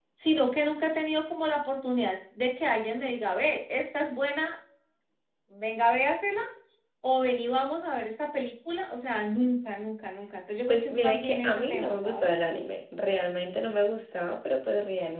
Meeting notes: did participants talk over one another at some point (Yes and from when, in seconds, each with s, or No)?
Yes, from 10.7 s